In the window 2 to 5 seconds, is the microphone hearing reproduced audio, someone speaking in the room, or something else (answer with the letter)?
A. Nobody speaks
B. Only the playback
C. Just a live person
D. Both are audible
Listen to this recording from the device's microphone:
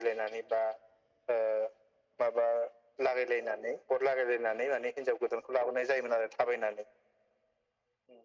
B